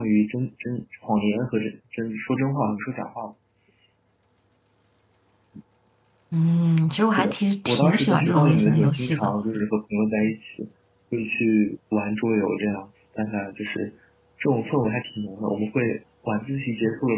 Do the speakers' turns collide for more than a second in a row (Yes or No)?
Yes